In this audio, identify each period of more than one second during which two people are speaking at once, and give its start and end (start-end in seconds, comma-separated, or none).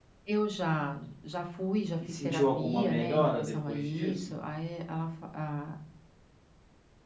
2.2-4.3